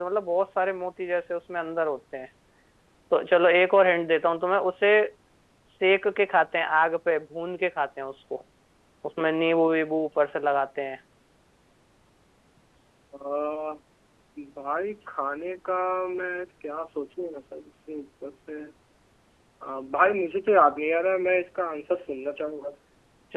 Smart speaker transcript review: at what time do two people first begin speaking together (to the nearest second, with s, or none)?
none